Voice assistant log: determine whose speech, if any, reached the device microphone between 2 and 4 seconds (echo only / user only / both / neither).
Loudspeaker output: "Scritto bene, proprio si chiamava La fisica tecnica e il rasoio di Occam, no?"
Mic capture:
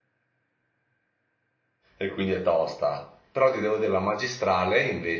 user only